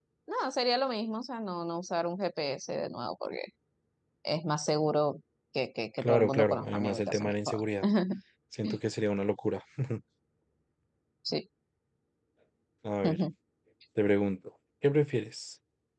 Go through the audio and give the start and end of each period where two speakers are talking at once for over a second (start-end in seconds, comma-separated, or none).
6.0-7.6